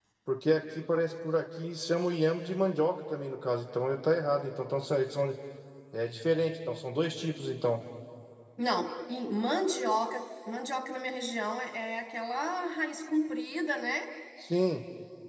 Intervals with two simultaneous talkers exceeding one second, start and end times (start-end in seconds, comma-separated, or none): none